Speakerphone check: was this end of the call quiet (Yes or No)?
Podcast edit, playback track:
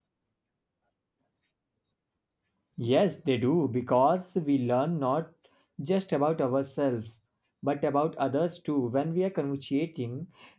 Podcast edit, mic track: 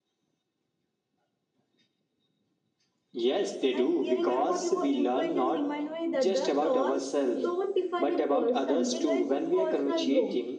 No